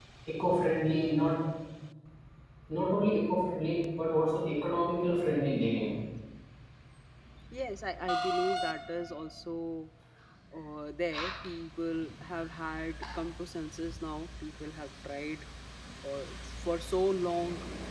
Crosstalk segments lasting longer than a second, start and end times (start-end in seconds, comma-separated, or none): none